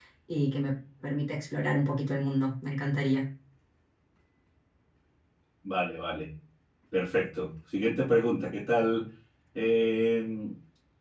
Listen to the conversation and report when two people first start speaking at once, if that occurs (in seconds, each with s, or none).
none